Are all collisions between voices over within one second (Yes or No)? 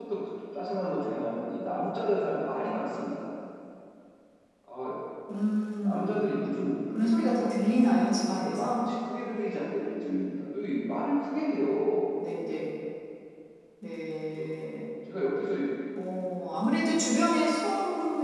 Yes